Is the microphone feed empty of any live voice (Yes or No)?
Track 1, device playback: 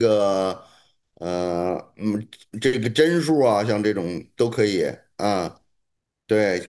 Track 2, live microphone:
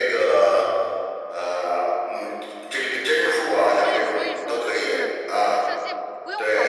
No